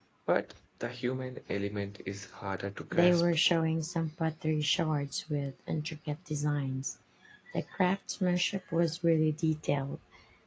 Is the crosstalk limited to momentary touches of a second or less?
Yes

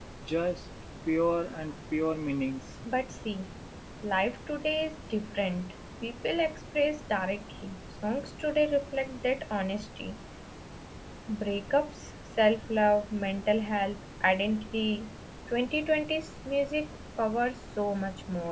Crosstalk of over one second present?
No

